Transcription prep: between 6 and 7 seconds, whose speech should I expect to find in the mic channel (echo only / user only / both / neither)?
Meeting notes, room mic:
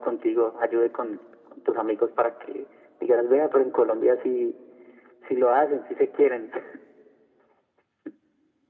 echo only